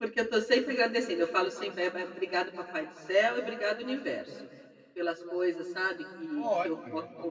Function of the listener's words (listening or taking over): taking over